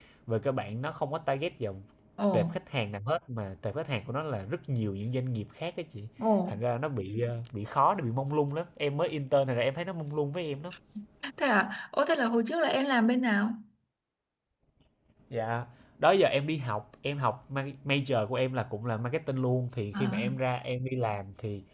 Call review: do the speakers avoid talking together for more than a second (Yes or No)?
Yes